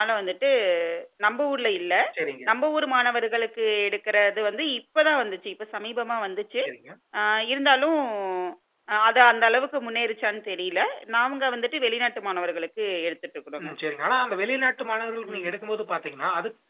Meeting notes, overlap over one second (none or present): none